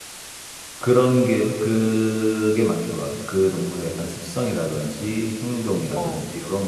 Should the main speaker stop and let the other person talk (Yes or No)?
No